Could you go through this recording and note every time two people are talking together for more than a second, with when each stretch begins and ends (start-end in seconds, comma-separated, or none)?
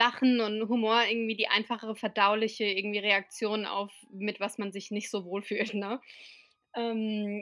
none